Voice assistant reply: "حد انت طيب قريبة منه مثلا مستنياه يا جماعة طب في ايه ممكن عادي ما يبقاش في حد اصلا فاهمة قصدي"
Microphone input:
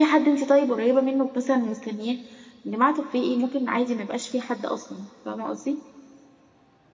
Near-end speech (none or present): none